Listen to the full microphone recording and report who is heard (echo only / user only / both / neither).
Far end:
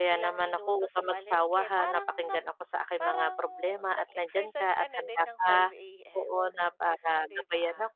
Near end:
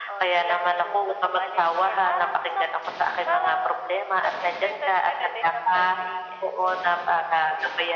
echo only